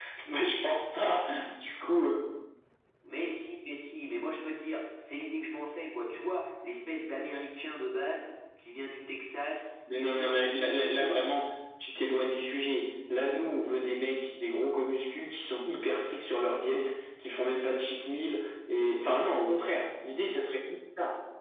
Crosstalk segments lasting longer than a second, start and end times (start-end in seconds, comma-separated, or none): 10.0-11.3